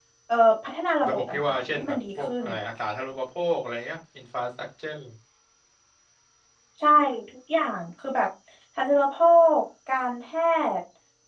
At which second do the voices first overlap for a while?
1.1 s

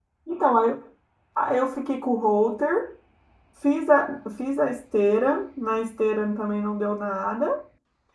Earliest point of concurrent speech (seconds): none

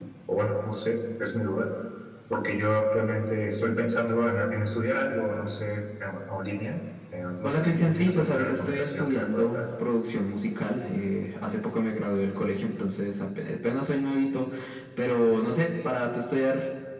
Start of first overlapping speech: 7.4 s

